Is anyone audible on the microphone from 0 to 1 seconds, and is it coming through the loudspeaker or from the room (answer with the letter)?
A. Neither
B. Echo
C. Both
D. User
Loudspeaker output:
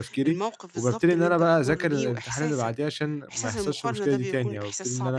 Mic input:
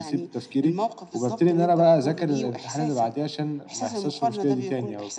B